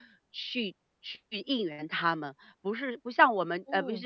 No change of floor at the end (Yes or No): Yes